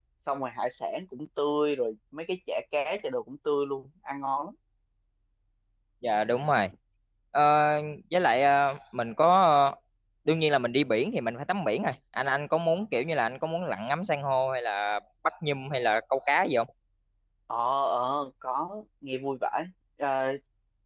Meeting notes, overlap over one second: none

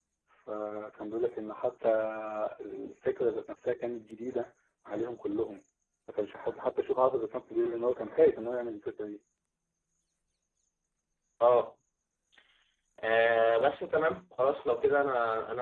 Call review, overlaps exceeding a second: none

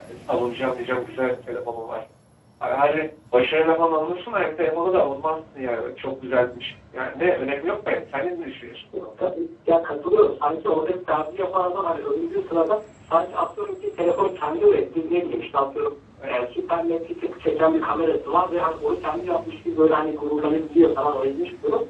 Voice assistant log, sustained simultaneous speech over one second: none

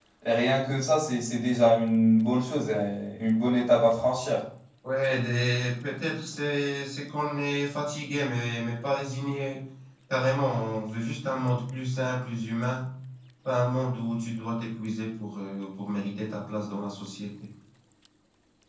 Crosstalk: none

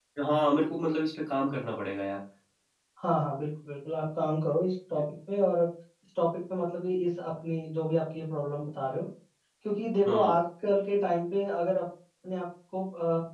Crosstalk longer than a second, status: none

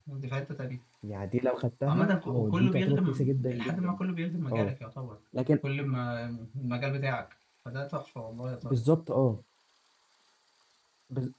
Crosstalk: present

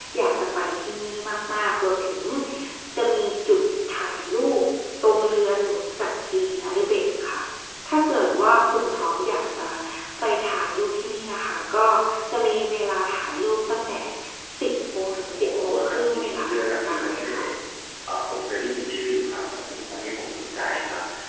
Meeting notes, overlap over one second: present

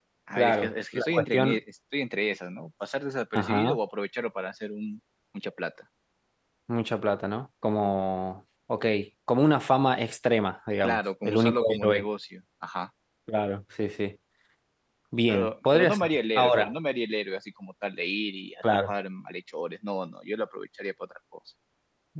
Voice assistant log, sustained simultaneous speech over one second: present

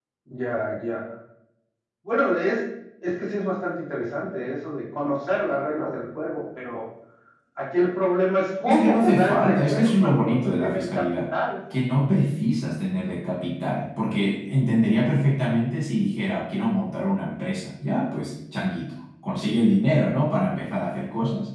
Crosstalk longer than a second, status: present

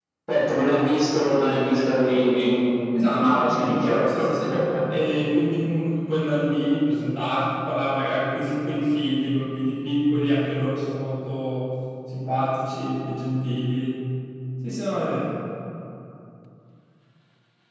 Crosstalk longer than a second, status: present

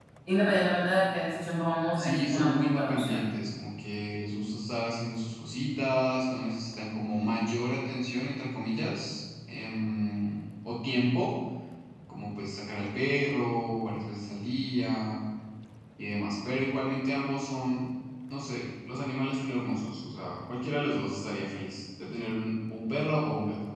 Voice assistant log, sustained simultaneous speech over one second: present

